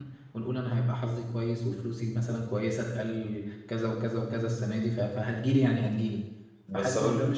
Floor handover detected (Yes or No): No